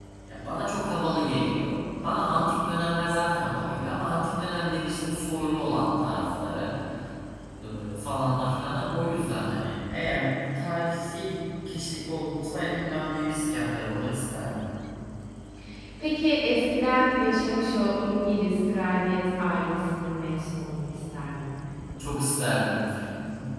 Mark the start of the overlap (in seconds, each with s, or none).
none